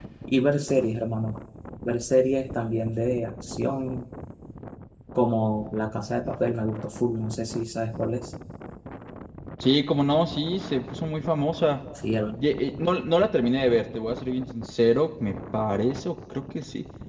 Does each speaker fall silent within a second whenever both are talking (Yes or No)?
Yes